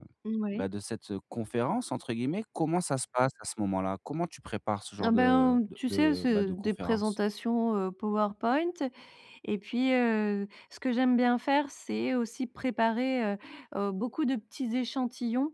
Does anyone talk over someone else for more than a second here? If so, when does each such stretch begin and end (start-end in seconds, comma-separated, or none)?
5.0-7.2